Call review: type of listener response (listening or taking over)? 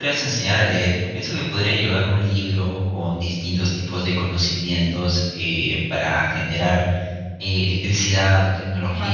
listening